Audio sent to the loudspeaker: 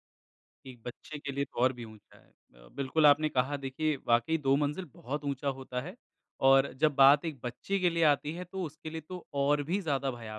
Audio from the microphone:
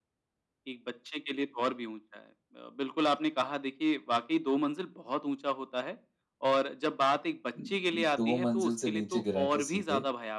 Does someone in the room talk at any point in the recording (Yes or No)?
Yes